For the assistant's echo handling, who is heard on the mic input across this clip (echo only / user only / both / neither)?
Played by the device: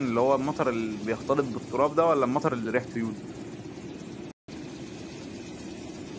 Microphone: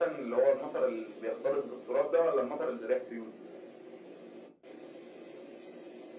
echo only